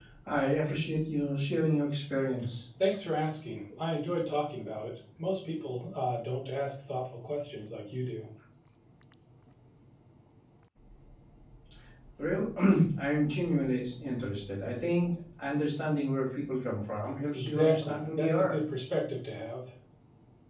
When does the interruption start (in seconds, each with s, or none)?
17.3 s